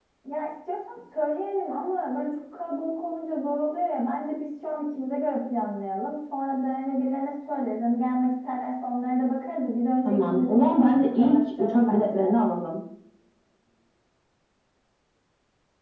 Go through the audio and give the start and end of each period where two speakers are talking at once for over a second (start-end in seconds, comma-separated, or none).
10.0-12.3